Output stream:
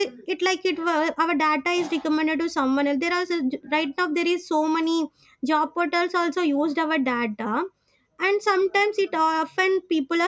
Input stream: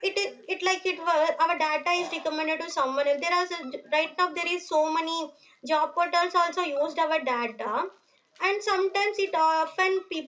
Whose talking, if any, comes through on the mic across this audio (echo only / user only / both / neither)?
echo only